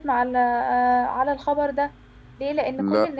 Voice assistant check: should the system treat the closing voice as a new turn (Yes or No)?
No